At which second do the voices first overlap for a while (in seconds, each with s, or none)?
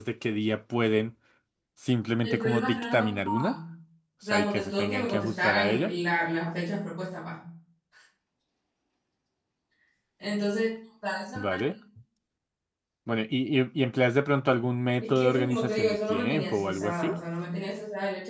2.2 s